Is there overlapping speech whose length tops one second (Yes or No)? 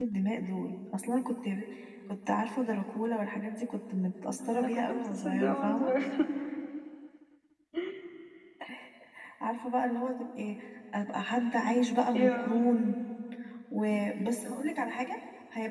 Yes